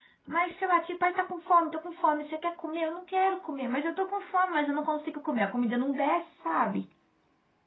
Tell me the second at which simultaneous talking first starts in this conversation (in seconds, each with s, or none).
none